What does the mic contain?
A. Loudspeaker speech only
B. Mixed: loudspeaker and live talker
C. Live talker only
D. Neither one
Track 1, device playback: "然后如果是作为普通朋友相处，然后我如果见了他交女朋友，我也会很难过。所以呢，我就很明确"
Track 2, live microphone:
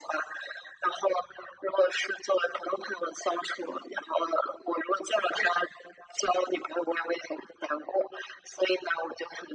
A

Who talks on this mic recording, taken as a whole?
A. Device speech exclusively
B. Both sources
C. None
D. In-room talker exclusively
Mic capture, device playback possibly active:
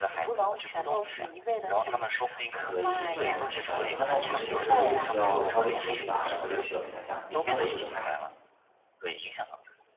B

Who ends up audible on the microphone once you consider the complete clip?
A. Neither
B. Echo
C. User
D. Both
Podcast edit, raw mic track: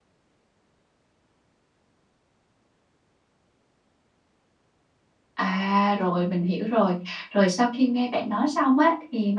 C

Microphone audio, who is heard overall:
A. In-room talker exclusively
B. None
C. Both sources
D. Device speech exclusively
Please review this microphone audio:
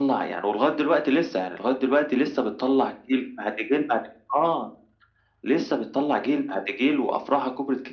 D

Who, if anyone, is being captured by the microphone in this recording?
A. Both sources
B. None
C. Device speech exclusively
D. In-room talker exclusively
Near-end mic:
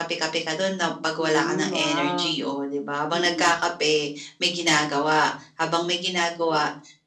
A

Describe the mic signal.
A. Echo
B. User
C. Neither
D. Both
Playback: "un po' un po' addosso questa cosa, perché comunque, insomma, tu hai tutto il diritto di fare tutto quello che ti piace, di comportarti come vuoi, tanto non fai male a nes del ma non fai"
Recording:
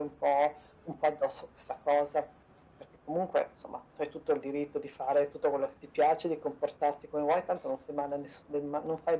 A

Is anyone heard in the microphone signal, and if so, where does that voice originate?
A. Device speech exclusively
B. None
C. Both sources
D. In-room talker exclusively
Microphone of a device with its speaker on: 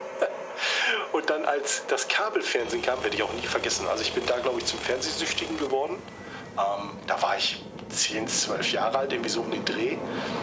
A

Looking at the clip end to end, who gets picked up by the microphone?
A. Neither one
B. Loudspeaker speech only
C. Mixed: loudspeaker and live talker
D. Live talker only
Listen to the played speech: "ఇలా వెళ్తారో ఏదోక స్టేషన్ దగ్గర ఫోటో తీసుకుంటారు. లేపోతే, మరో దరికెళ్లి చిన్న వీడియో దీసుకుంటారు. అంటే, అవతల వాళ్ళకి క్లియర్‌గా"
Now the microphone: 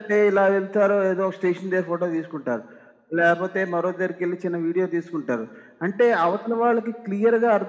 B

